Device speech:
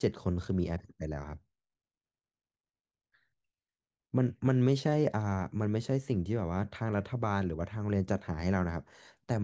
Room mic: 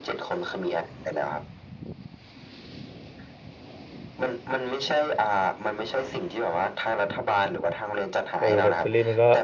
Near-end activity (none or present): present